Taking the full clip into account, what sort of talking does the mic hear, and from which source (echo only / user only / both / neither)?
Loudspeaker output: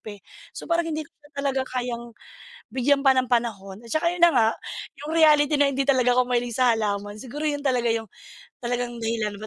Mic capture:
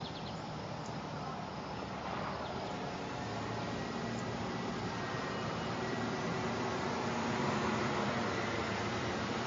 neither